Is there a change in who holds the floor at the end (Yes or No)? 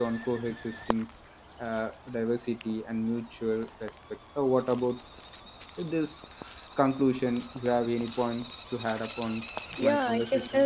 Yes